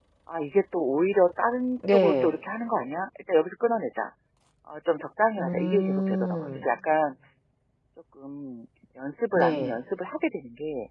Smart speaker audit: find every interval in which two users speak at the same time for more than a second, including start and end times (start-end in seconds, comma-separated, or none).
5.4-6.6